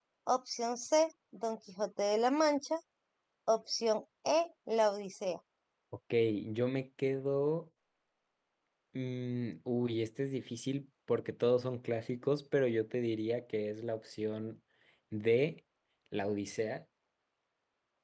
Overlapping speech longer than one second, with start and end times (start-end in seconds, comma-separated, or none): none